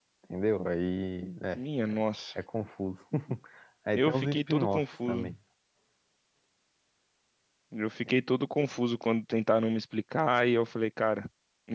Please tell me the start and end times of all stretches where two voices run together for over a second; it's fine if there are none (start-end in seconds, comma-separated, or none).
4.0-5.3